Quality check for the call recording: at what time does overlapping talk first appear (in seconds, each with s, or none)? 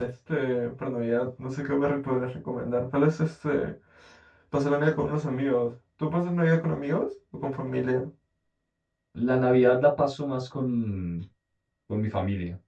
none